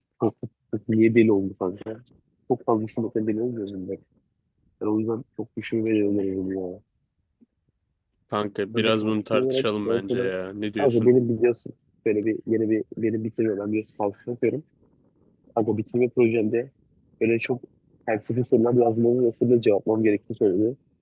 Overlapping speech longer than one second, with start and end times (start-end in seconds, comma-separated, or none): 8.7-10.3